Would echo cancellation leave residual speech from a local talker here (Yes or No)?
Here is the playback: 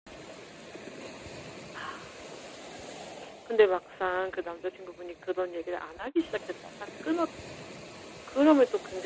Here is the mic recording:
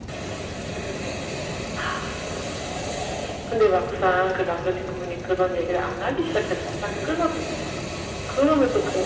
No